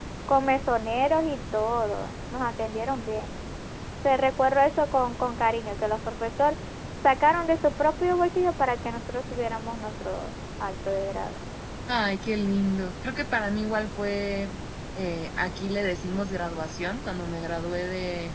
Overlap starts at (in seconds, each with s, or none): none